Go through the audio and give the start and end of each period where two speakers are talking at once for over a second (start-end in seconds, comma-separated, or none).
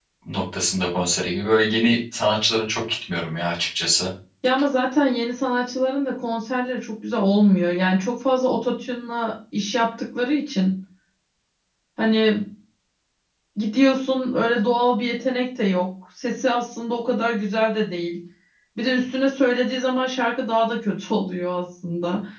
none